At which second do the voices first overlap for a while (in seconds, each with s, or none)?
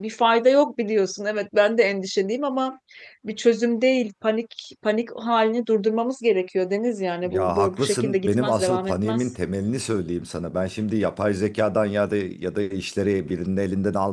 7.2 s